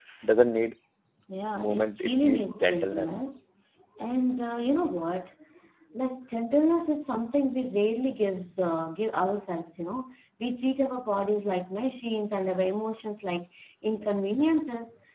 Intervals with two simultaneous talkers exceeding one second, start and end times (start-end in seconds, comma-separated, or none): 1.6-3.1